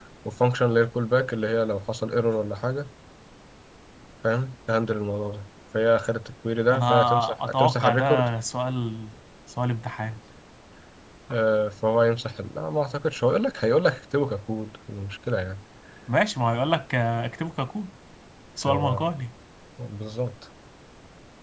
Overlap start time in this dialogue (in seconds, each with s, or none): 6.7 s